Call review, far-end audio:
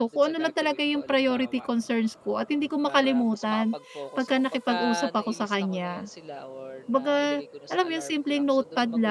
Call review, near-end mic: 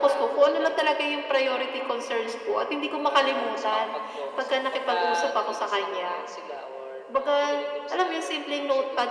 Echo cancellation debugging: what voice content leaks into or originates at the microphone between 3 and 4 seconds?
echo only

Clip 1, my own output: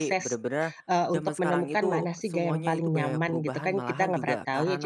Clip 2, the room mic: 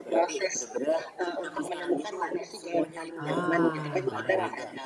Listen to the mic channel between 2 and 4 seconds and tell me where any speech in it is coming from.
both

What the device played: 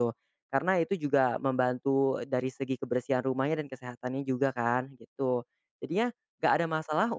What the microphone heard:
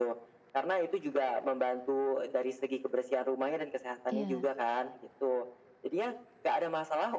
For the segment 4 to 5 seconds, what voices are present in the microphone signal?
both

